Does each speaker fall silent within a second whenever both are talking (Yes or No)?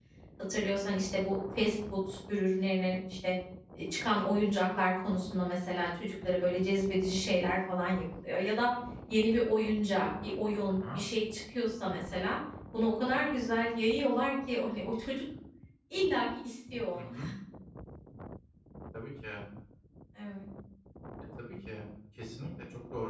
Yes